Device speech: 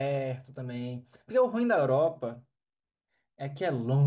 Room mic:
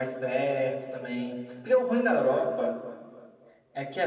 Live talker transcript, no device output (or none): none